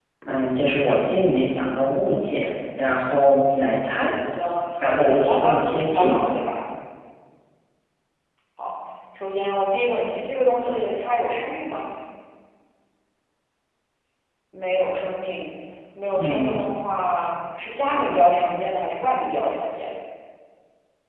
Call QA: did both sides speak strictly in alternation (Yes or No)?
No